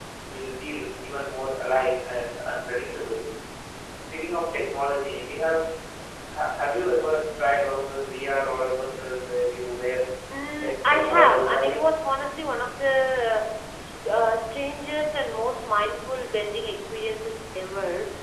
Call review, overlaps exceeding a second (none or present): present